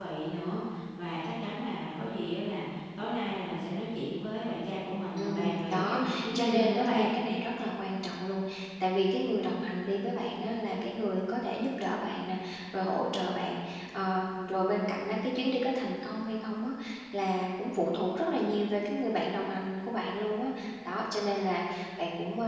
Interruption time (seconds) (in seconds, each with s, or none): 5.2 s